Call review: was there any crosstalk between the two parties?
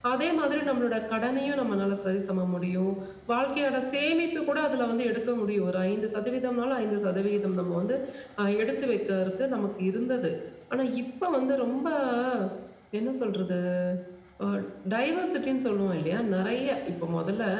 No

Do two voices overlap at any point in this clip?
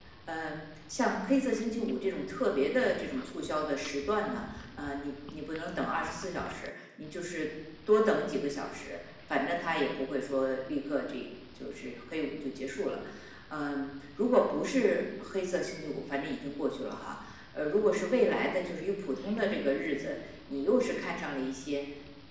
No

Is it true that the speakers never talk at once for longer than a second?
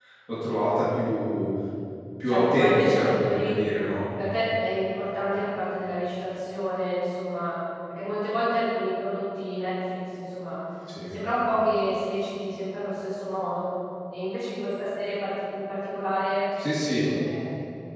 No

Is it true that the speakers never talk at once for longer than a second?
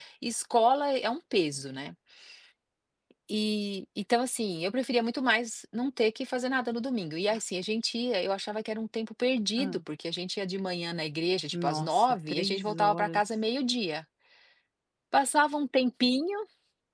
No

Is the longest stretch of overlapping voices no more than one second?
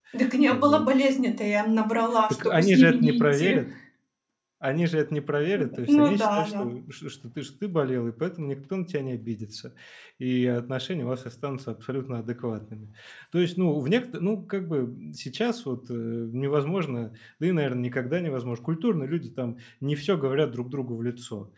No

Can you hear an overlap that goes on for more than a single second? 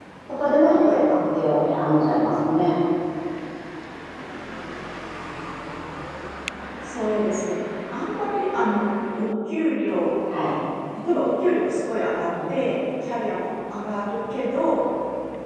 No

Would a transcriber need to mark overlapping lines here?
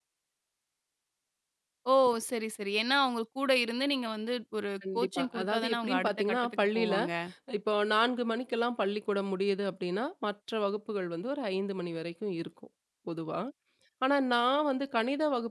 Yes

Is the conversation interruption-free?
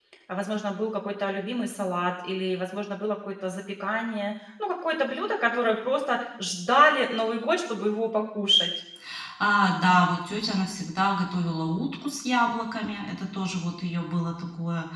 Yes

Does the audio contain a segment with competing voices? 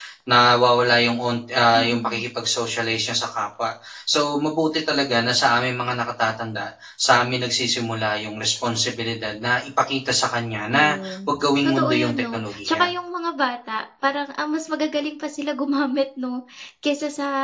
Yes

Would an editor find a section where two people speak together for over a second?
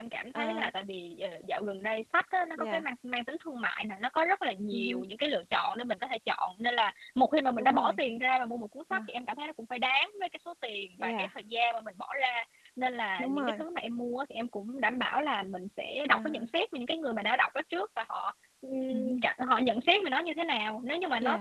No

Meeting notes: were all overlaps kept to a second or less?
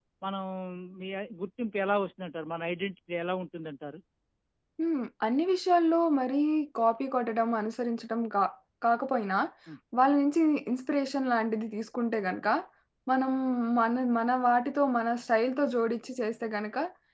Yes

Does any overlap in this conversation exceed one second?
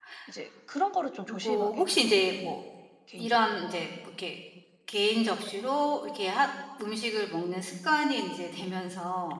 Yes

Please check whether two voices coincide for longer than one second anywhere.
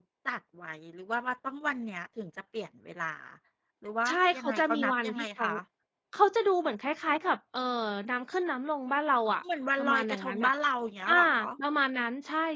Yes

